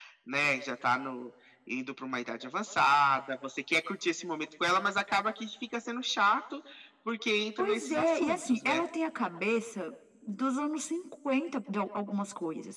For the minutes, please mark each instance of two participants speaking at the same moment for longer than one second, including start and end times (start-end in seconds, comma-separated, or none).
7.6-8.8